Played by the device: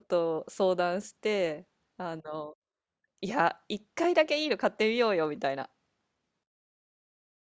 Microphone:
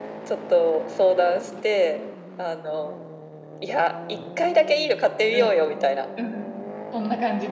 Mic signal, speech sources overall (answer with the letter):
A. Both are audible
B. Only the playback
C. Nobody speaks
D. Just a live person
A